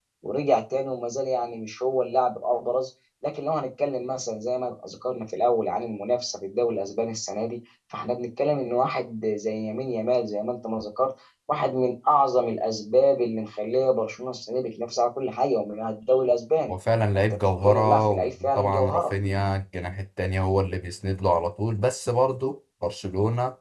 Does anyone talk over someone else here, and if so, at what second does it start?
17.1 s

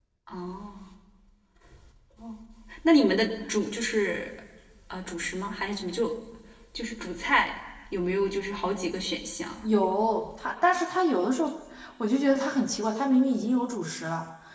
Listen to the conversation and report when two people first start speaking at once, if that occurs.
none

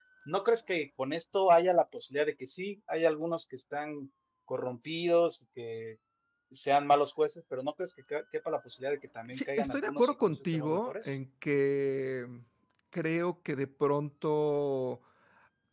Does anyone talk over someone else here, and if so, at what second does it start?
9.3 s

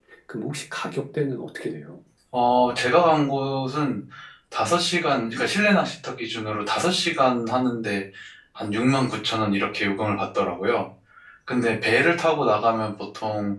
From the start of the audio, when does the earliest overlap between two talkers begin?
none

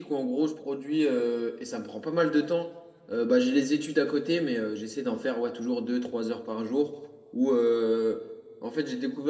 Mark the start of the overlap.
none

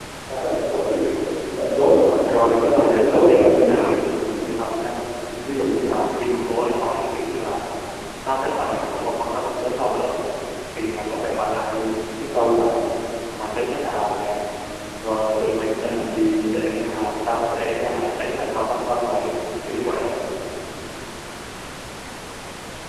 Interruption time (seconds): 2.3 s

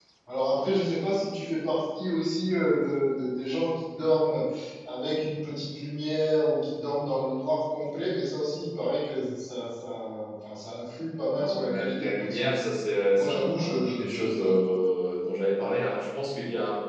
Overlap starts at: 11.4 s

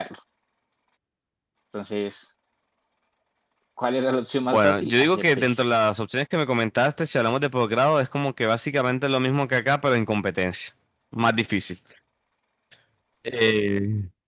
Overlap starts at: 4.5 s

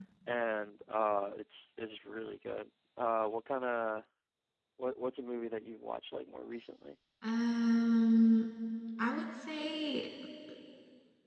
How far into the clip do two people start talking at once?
none

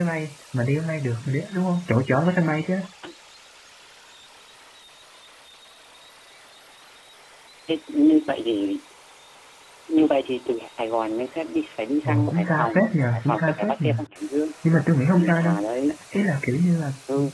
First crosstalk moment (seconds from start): 12.0 s

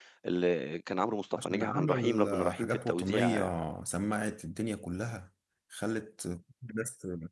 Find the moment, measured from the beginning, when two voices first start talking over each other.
1.4 s

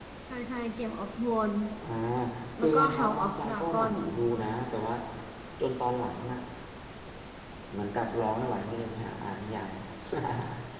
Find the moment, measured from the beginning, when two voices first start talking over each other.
2.6 s

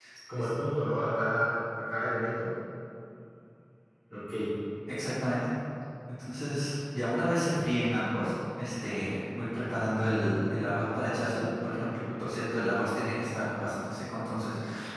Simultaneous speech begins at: none

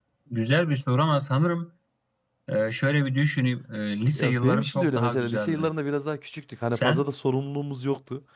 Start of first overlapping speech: 4.2 s

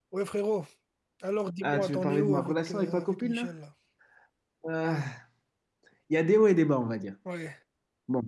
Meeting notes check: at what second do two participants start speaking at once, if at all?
1.6 s

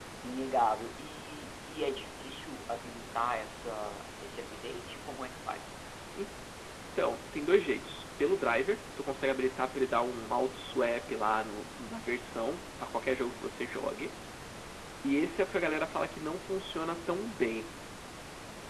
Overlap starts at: none

